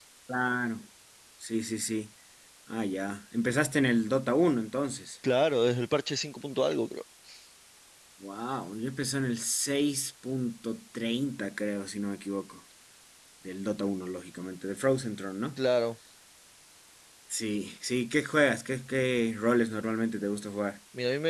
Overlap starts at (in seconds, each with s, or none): none